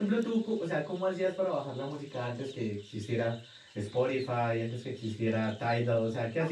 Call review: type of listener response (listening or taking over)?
taking over